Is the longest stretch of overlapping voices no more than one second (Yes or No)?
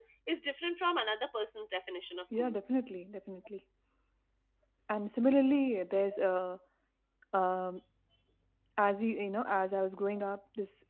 Yes